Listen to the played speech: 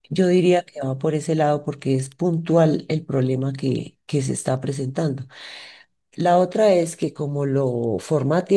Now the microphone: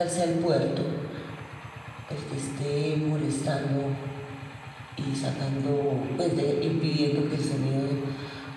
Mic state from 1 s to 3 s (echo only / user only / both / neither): user only